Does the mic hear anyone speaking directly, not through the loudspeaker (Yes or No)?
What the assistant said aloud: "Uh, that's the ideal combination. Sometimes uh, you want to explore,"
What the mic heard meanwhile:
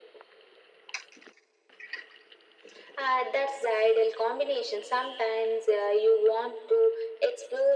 No